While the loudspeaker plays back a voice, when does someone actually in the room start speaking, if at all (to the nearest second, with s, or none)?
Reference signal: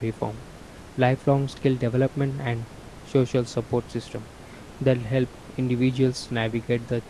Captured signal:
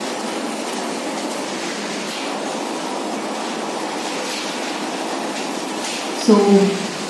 6 s